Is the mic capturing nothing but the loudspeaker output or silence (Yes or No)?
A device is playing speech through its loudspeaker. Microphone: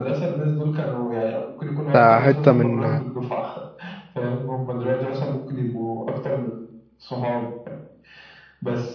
No